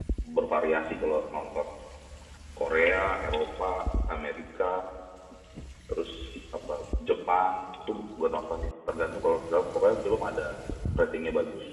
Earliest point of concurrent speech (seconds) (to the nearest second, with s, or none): none